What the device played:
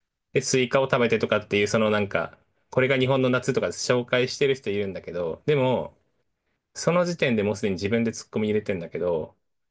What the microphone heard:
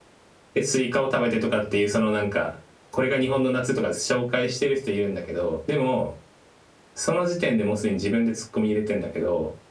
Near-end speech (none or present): none